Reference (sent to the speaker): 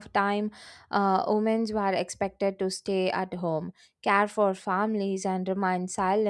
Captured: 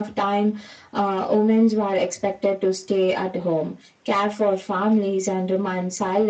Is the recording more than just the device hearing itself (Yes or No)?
No